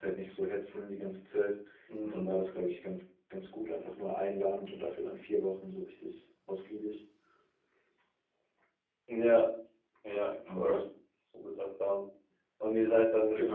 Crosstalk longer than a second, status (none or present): none